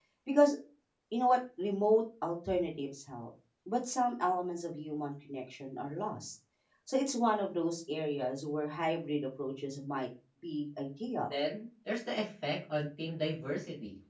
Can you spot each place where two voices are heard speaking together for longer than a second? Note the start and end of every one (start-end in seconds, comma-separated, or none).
none